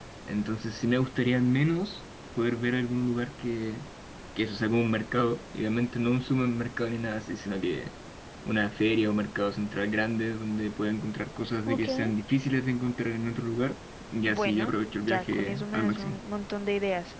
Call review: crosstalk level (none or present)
present